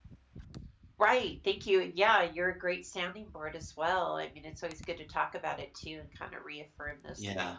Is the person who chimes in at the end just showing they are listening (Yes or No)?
Yes